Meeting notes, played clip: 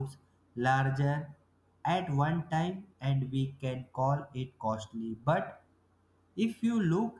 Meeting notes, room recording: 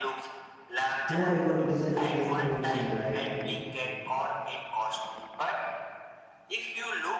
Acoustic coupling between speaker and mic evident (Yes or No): Yes